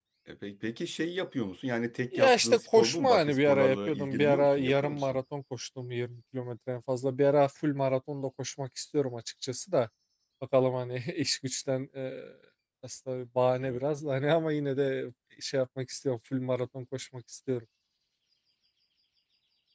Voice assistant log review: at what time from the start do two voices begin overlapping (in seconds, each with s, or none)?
2.1 s